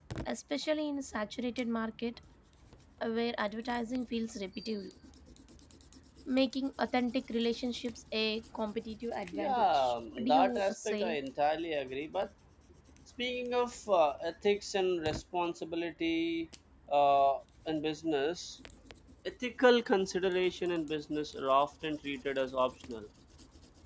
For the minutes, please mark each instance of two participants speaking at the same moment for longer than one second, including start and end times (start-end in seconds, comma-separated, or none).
9.3-11.2